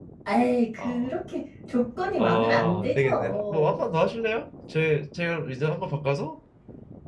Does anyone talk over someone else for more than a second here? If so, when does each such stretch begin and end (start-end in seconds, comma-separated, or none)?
2.2-3.8